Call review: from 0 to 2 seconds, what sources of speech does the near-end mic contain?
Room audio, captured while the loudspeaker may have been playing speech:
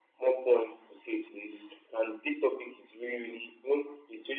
echo only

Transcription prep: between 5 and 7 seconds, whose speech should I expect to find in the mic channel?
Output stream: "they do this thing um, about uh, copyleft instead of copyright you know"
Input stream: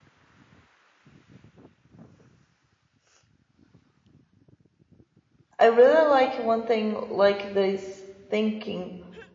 user only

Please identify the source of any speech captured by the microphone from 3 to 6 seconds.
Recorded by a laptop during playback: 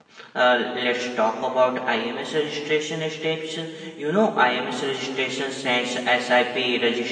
user only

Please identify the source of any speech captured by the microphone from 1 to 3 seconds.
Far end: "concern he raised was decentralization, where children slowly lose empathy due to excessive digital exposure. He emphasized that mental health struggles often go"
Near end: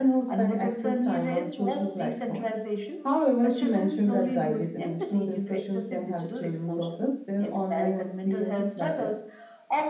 both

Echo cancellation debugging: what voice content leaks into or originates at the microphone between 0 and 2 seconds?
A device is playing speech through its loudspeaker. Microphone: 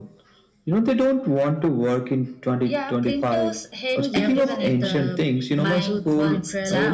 echo only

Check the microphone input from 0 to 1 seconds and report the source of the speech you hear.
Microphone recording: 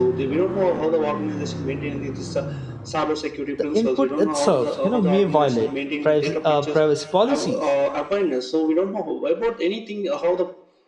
echo only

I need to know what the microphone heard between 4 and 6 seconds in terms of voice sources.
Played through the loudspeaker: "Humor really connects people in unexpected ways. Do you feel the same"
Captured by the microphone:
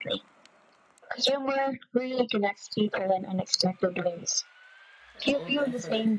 both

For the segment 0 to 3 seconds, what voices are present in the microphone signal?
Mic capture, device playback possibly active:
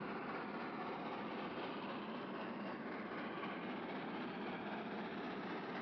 neither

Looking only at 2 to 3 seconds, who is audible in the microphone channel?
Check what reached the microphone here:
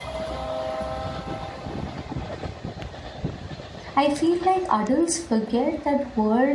neither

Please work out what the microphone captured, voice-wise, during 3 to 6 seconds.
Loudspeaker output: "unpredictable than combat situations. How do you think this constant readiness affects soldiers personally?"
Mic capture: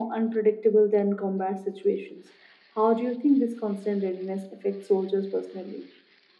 echo only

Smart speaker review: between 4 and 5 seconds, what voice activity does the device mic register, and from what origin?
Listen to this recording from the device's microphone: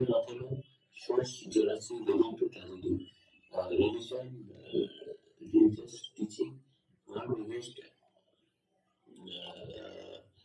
echo only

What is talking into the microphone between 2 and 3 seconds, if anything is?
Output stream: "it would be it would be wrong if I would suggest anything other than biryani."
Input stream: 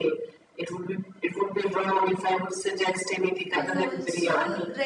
echo only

